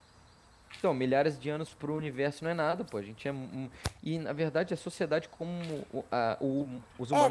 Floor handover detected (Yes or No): Yes